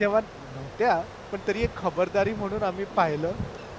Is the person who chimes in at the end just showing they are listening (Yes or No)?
Yes